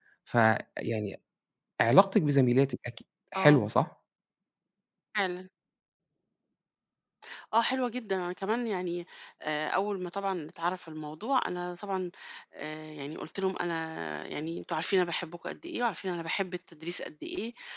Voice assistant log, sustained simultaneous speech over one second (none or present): none